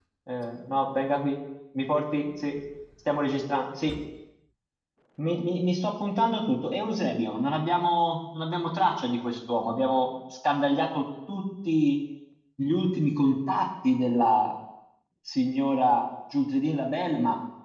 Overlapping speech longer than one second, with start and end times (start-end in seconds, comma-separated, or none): none